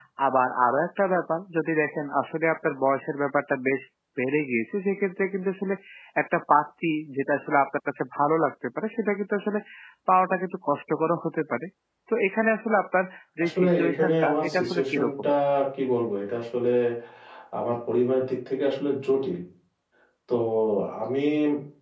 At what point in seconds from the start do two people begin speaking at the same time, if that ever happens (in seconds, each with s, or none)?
13.4 s